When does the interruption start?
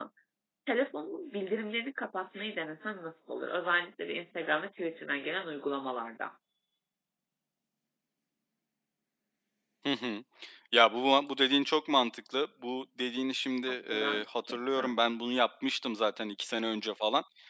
13.7 s

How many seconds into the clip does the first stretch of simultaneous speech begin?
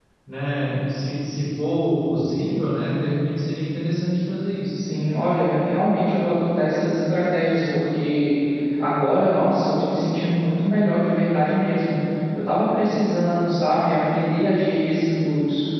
none

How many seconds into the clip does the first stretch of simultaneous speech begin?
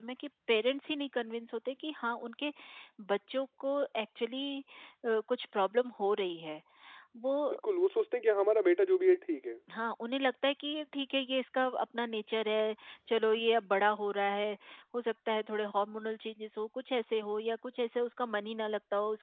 none

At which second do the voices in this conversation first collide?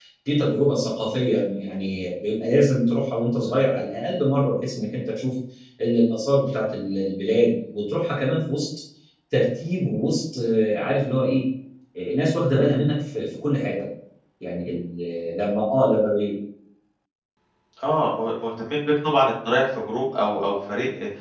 none

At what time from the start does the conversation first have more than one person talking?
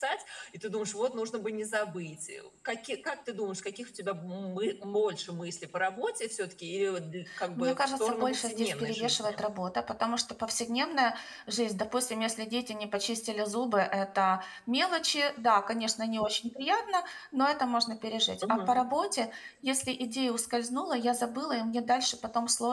7.6 s

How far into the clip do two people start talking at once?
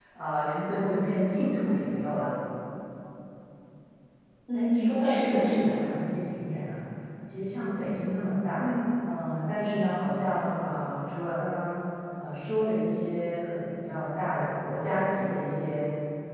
4.5 s

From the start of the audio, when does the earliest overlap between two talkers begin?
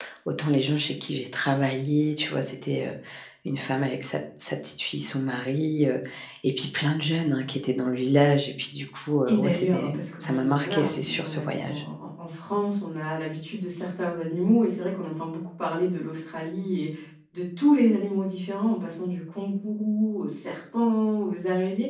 9.3 s

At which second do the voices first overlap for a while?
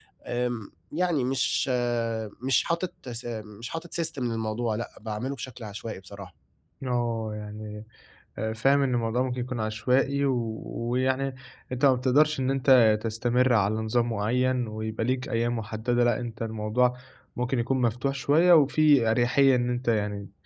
none

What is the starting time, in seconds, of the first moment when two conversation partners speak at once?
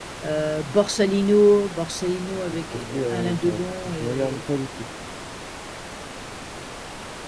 2.5 s

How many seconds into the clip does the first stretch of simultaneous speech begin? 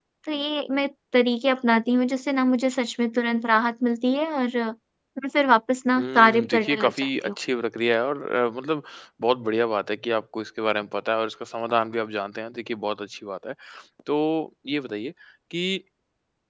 6.0 s

